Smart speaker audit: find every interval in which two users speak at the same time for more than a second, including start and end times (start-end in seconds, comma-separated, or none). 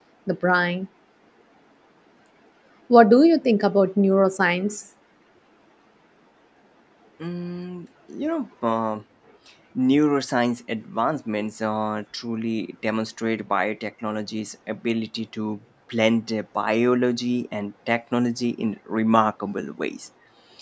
none